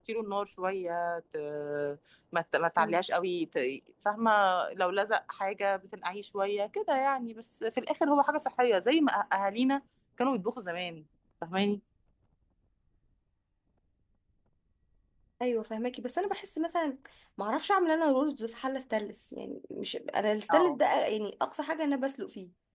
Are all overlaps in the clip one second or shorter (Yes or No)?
Yes